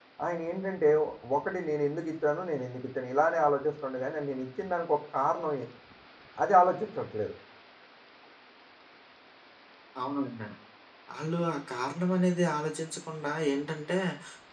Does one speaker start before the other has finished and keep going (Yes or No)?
No